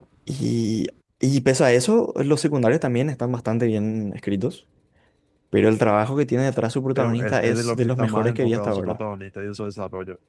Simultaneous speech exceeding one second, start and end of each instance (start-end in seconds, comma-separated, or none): 7.0-9.0